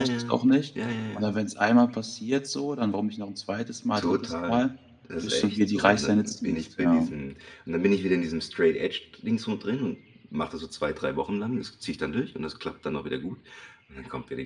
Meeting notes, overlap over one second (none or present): present